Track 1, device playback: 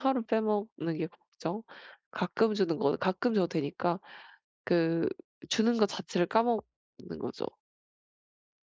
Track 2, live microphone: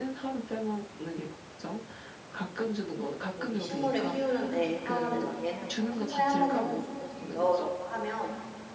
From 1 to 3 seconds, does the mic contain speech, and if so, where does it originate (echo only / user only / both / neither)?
echo only